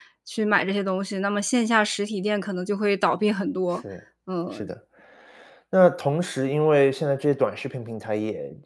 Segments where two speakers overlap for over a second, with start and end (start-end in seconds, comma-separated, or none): none